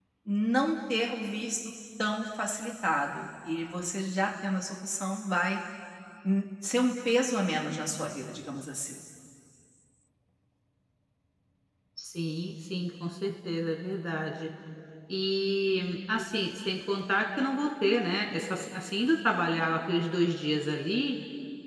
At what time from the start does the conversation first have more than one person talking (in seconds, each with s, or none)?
none